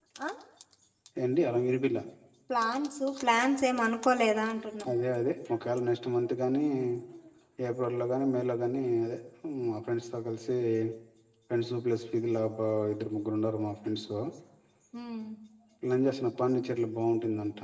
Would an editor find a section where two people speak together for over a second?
No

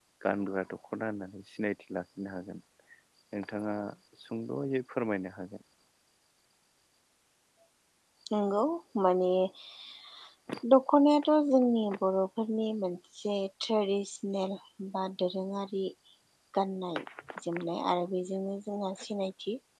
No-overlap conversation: Yes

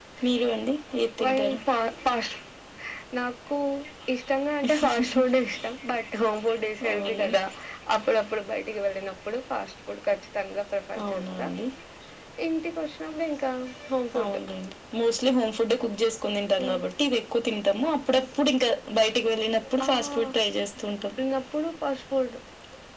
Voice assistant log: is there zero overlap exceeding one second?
Yes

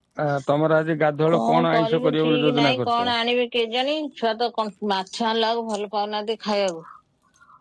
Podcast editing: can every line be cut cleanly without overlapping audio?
No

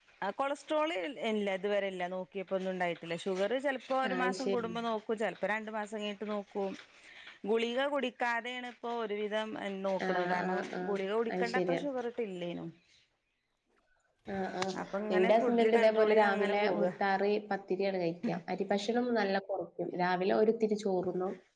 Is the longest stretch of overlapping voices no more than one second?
No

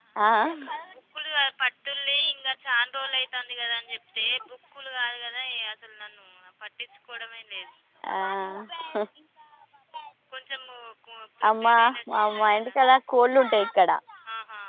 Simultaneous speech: Yes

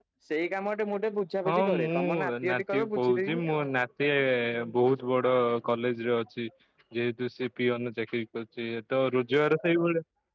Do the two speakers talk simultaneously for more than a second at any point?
Yes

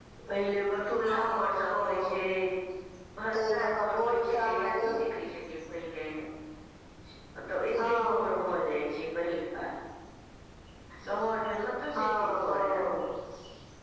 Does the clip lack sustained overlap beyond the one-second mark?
No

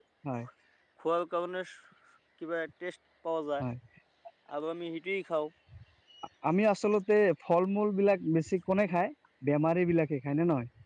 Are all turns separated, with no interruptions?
Yes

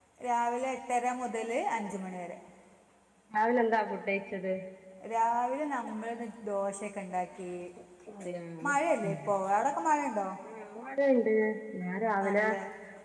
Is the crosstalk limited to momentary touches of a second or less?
Yes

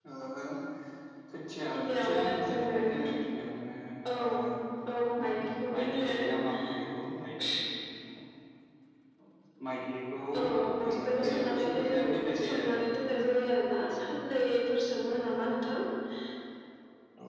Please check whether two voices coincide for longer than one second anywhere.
Yes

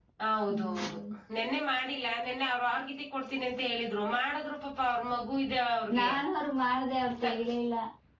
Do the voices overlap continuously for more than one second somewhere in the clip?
No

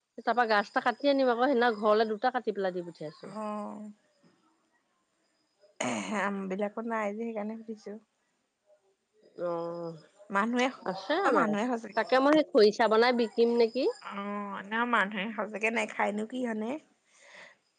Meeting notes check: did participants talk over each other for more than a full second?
No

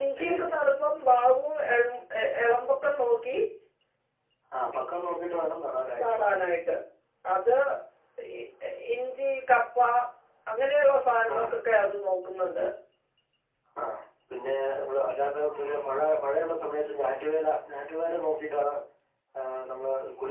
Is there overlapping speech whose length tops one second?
No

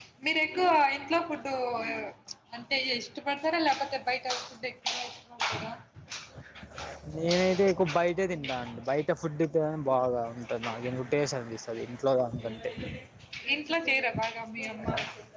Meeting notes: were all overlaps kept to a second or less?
Yes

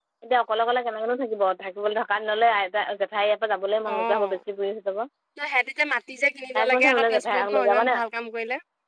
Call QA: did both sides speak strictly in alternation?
No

